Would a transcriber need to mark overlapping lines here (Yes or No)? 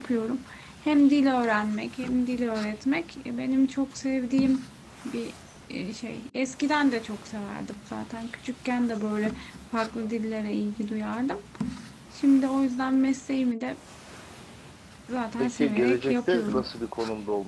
Yes